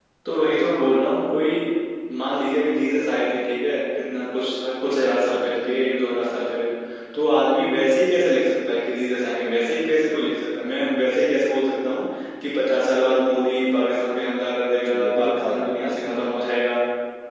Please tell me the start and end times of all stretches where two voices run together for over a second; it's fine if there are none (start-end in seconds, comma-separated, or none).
14.8-16.2